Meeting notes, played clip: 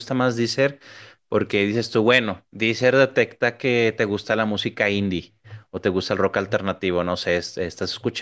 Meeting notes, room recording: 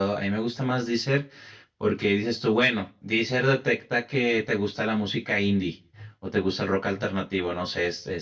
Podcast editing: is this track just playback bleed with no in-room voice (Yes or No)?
Yes